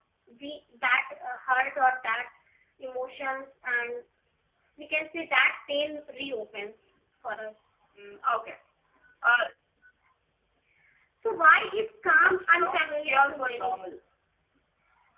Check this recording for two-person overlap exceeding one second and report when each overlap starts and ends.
12.1-13.8

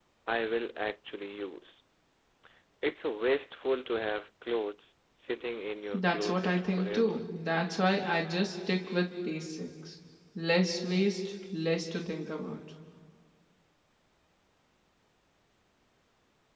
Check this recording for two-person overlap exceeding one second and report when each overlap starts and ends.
5.9-7.2

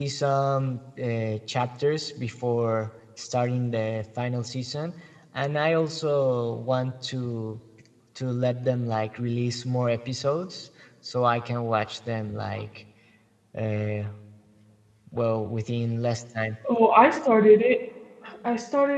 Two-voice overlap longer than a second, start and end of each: none

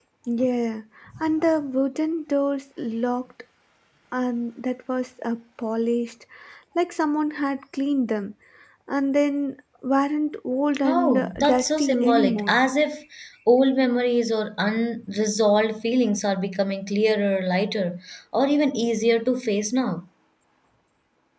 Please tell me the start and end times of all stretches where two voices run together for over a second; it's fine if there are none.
10.8-12.6

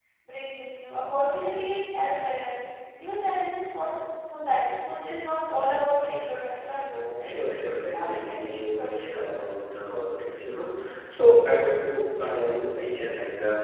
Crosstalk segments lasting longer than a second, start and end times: 7.9-9.5

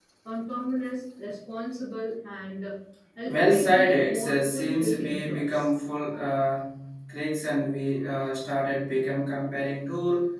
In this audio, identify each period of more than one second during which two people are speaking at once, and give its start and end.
3.2-5.7

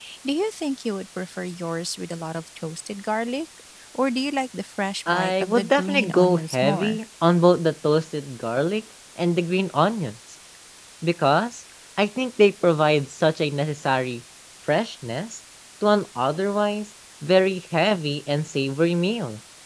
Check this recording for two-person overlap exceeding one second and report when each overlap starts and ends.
5.1-7.0

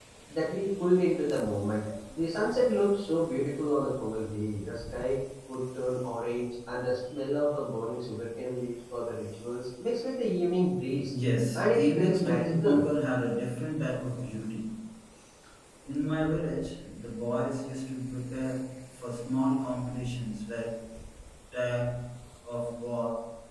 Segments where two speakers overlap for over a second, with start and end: 11.5-12.8

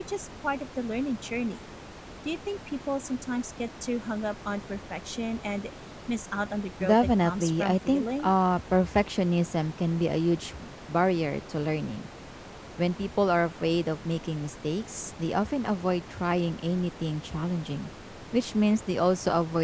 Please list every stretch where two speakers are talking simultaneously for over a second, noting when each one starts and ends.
6.8-8.3

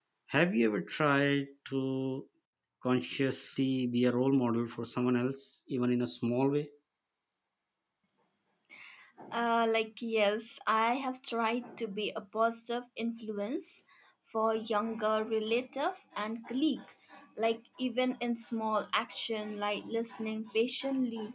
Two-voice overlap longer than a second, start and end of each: none

